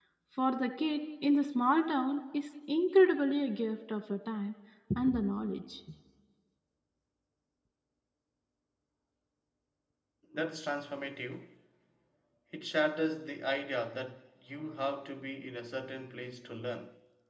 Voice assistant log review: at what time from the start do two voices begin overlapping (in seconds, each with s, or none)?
none